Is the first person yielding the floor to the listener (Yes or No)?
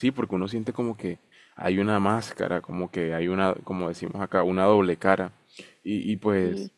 No